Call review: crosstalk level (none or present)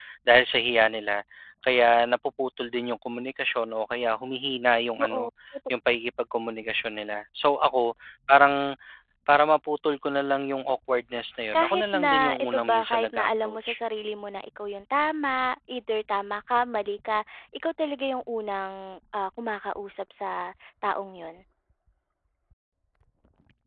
present